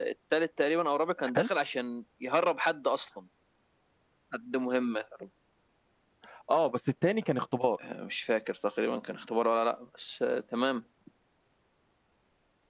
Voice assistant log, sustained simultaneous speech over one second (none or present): none